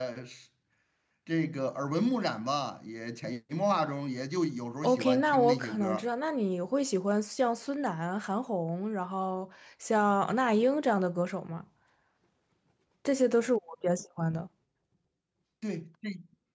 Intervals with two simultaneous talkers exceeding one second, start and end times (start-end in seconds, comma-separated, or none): 4.8-6.0